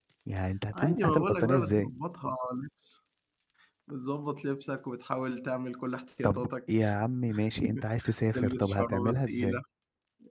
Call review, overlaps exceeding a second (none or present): present